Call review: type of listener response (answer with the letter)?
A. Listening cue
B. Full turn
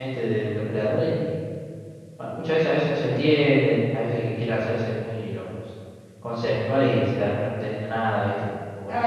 B